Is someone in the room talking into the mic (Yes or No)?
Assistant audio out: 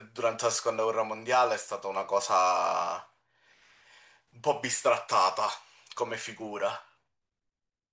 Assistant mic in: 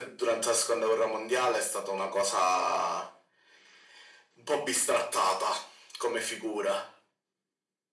No